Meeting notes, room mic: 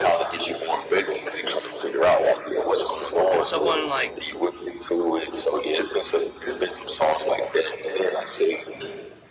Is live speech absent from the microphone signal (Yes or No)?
No